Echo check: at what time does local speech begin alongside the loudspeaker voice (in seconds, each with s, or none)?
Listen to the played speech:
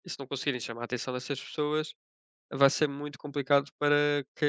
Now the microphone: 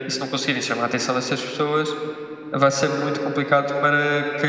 none